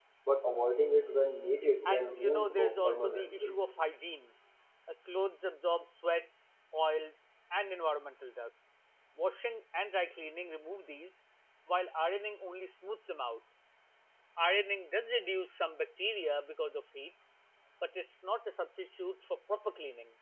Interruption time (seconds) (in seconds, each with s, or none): 1.9 s